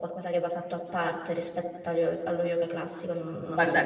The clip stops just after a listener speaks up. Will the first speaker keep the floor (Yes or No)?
No